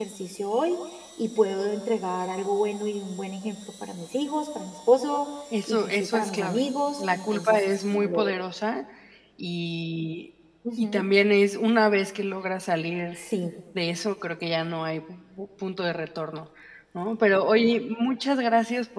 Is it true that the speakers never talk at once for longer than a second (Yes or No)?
No